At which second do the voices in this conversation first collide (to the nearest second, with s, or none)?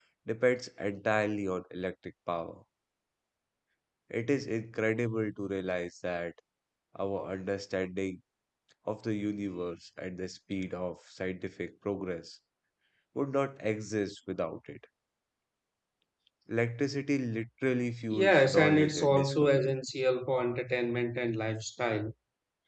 18 s